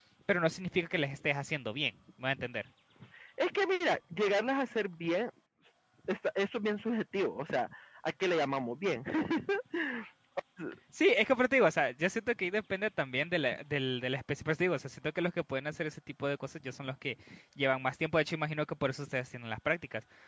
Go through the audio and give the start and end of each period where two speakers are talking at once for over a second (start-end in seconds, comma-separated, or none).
none